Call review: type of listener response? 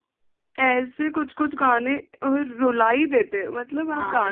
taking over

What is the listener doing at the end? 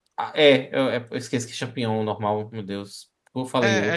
taking over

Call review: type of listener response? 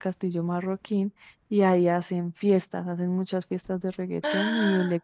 listening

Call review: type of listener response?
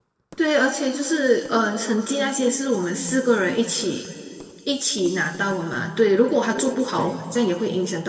listening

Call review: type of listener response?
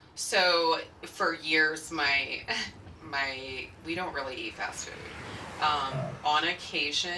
listening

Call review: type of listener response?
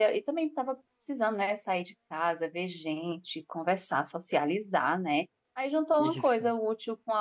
listening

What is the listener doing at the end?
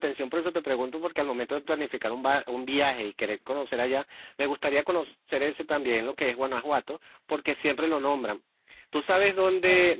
listening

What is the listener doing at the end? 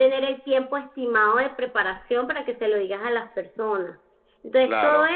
listening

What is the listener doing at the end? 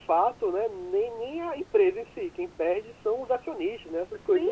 taking over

